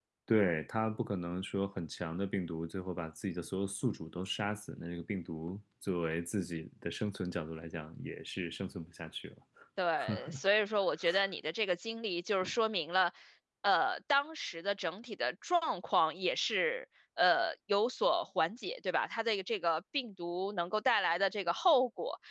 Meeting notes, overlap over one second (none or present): none